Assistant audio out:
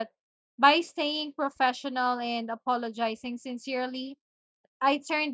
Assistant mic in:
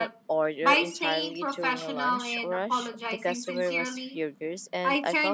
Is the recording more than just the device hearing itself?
Yes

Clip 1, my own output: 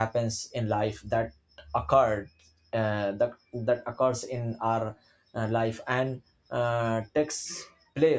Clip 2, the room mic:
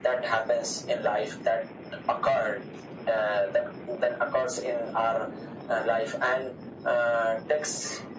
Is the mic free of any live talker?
Yes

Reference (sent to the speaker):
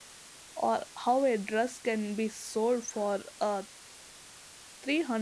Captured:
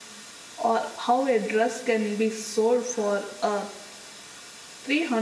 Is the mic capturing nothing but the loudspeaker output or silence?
Yes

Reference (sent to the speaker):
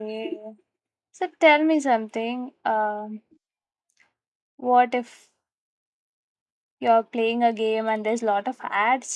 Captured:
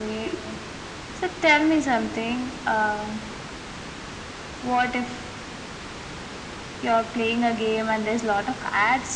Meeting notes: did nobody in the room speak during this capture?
Yes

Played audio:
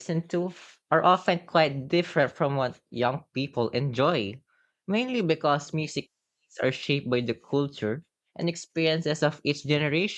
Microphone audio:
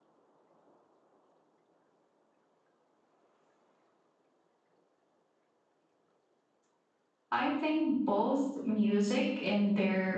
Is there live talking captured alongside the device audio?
Yes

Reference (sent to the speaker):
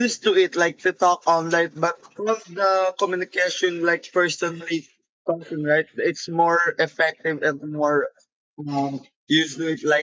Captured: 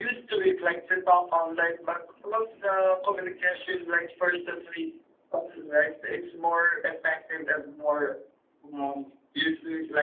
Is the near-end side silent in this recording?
Yes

